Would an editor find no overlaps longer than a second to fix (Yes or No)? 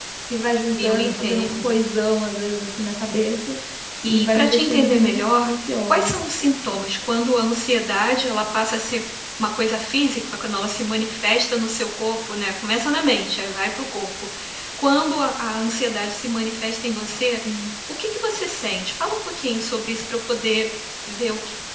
No